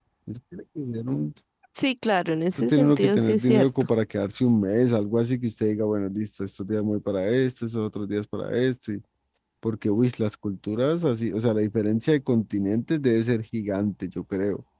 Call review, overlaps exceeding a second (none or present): present